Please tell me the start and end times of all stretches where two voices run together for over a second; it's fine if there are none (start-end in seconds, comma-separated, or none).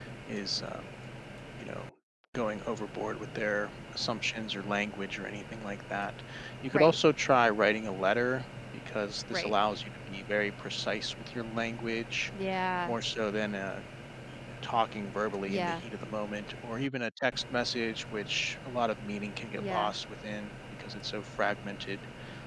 none